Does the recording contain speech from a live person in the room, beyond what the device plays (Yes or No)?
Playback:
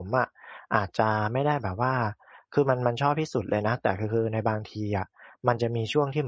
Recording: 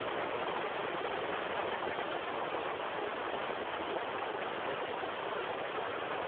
No